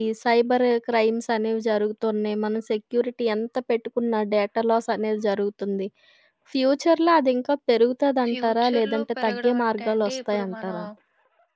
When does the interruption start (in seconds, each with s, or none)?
8.3 s